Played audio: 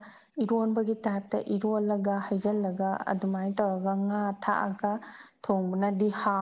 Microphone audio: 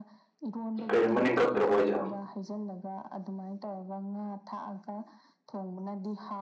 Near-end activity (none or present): present